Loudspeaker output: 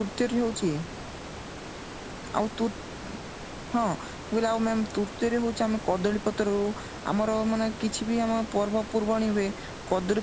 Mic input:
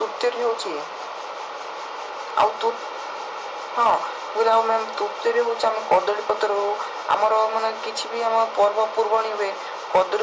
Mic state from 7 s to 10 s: echo only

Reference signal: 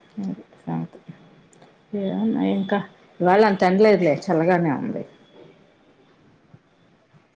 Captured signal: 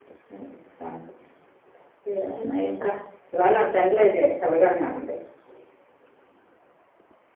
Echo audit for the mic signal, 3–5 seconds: echo only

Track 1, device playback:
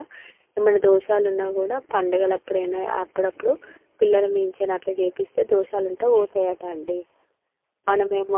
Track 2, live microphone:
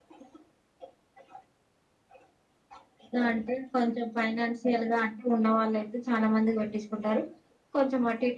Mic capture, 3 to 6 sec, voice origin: user only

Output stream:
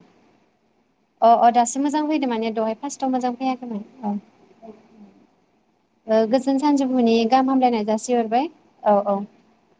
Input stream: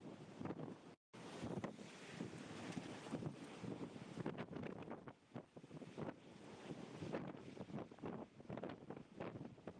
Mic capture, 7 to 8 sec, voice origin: neither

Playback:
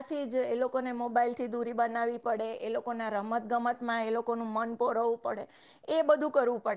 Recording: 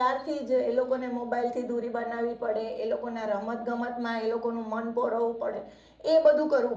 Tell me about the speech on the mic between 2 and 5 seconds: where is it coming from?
echo only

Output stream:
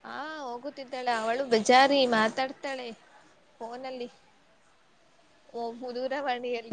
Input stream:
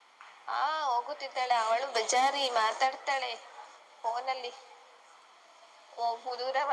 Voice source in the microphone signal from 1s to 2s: echo only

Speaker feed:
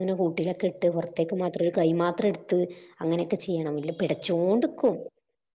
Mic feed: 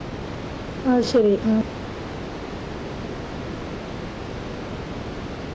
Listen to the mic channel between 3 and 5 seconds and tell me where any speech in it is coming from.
neither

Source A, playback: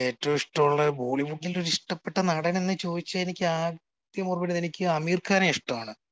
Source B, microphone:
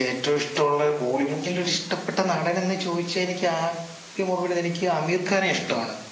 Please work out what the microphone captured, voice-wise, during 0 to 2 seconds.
echo only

